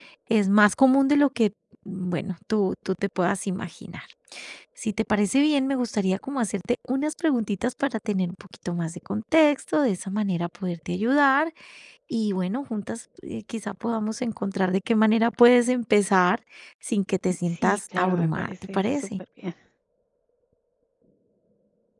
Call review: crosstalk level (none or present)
present